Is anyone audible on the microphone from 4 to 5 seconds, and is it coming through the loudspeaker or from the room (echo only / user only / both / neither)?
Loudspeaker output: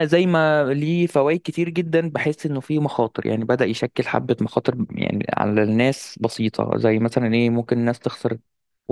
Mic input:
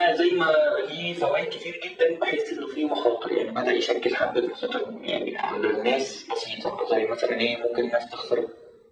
echo only